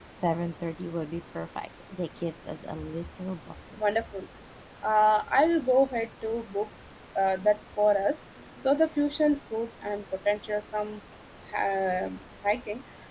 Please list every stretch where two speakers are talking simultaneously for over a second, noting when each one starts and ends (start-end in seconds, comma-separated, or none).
none